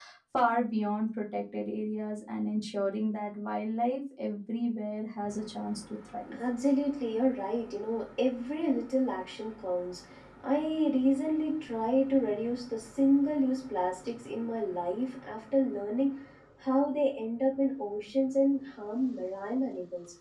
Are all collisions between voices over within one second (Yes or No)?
Yes